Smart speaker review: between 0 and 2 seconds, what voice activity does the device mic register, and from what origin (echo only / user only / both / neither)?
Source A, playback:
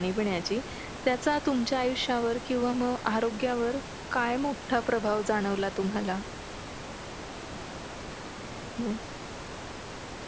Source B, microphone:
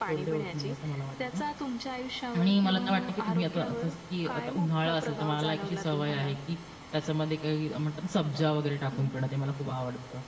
both